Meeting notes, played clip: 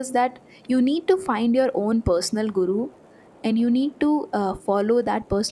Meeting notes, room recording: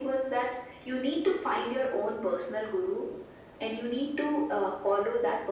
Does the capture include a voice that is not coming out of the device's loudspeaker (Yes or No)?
No